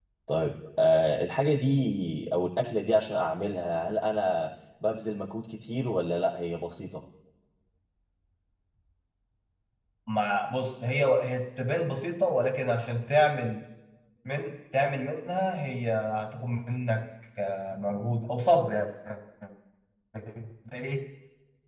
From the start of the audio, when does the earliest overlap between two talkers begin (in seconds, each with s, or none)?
none